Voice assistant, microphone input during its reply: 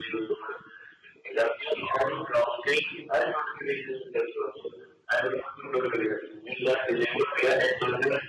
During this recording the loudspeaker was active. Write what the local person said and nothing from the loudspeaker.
none

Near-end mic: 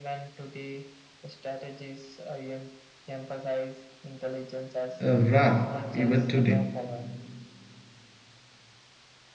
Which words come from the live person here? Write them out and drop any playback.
uh, rare even today.

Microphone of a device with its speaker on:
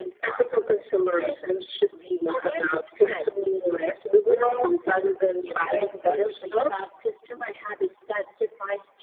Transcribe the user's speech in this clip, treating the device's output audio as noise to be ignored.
none

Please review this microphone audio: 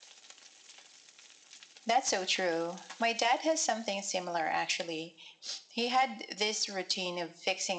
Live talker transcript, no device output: none

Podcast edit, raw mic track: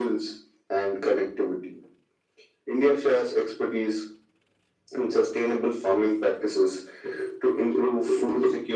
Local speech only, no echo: none

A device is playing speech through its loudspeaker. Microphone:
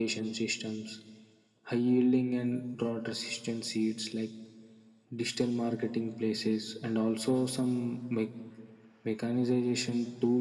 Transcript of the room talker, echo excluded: none

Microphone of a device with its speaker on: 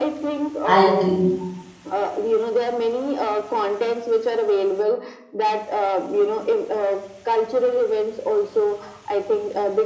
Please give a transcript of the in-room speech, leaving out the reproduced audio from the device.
I agree.

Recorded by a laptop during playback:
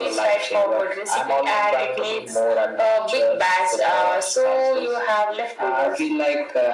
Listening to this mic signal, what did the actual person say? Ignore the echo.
none

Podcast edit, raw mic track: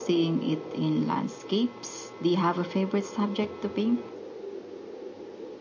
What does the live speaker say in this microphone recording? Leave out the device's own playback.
none

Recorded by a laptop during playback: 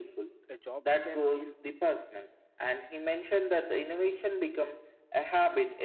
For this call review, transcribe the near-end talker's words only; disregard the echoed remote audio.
uh, jobs can feel

